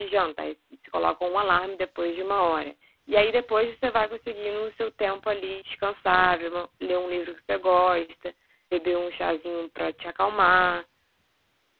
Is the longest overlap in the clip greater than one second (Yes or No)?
No